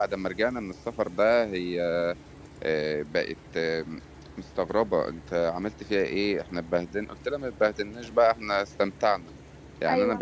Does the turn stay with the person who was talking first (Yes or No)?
Yes